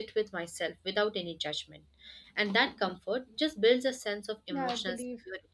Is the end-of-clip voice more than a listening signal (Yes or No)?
Yes